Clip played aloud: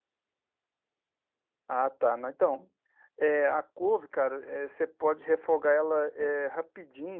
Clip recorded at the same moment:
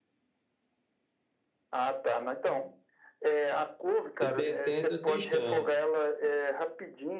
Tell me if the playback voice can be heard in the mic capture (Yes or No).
Yes